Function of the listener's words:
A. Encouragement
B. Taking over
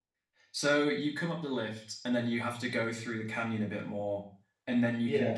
A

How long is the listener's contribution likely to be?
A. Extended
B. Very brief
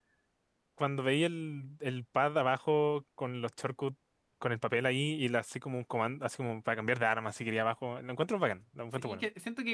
A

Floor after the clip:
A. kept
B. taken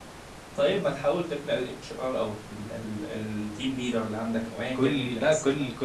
B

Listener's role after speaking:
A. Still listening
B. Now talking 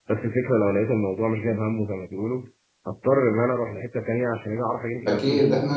B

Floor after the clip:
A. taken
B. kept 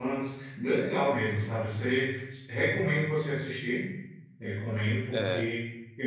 B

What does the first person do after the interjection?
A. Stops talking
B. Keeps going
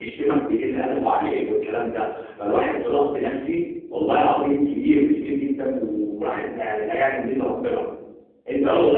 B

